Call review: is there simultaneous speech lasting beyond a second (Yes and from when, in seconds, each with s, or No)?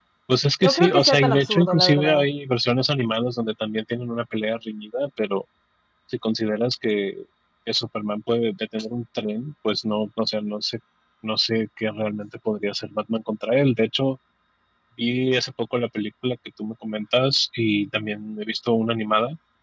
Yes, from 0.6 s